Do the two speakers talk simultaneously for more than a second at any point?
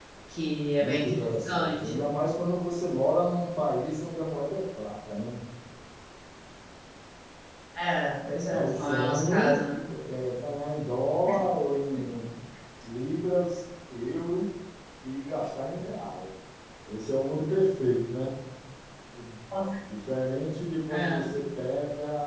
Yes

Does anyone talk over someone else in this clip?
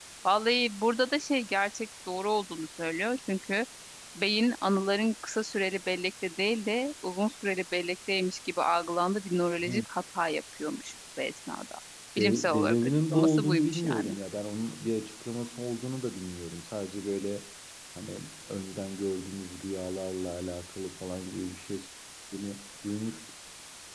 Yes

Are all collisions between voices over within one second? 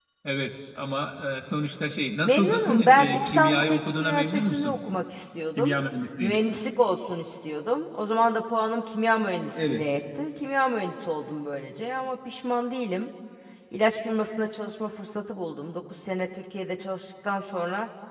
No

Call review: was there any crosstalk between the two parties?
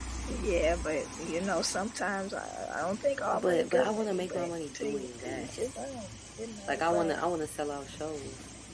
Yes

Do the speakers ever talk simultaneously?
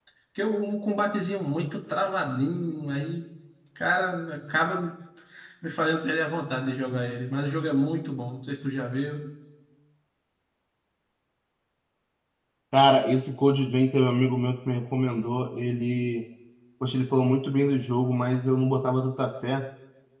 No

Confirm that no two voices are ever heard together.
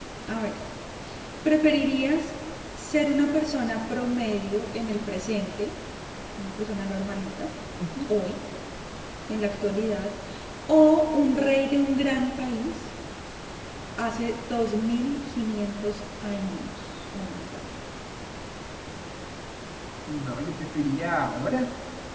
Yes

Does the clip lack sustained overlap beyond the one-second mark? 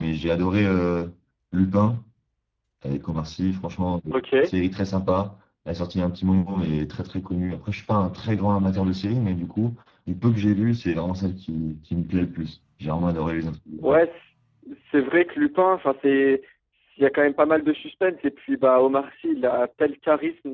Yes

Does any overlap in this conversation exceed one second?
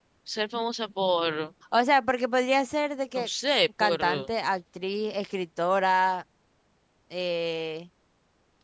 No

